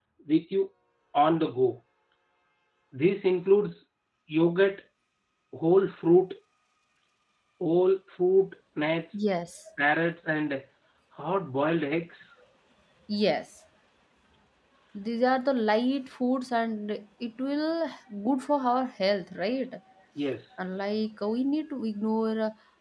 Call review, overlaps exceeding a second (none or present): none